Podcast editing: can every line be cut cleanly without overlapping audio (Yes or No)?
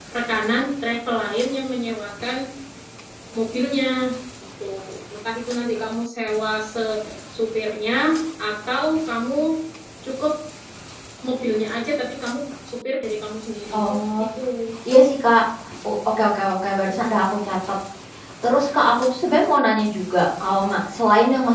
Yes